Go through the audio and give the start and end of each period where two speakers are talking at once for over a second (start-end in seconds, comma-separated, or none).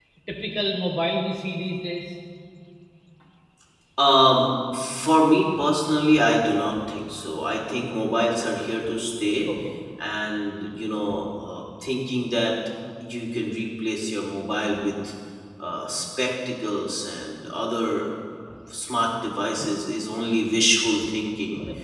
none